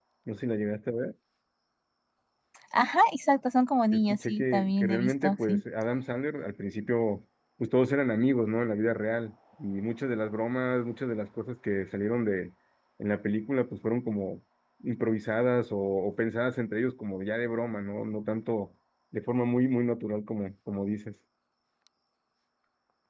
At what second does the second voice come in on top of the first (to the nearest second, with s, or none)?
4 s